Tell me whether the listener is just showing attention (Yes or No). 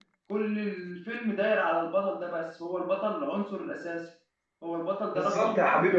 No